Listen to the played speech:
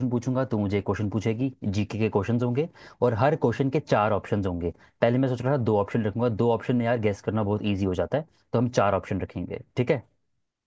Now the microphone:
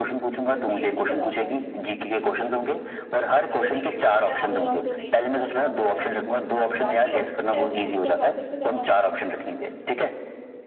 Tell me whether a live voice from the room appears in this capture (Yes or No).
Yes